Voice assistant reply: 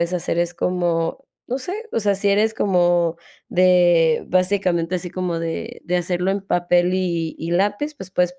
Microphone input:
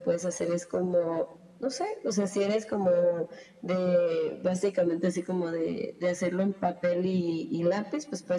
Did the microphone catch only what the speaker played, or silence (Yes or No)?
Yes